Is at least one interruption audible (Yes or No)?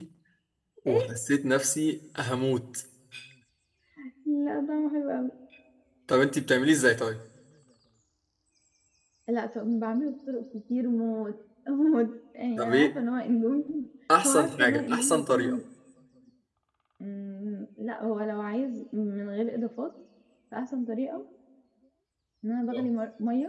Yes